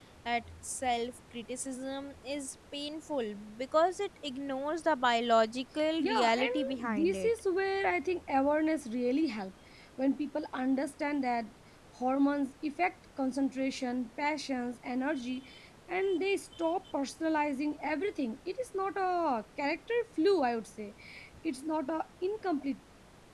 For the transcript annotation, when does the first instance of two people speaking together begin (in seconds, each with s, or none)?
6.0 s